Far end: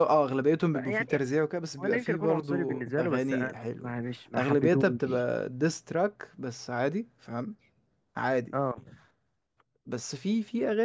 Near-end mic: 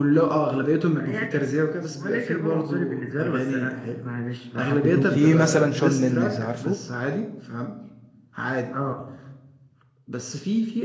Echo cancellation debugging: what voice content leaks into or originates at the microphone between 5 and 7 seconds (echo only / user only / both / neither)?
both